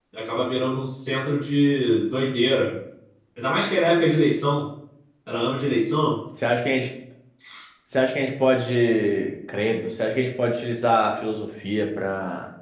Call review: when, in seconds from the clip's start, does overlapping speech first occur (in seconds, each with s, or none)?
none